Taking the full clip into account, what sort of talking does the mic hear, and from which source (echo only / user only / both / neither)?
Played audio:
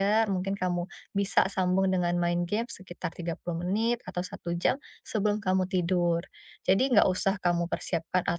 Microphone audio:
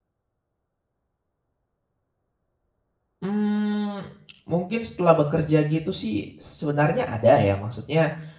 user only